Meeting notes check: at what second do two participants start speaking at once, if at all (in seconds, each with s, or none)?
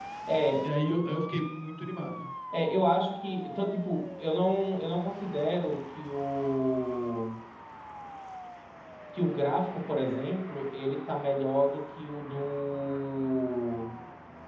none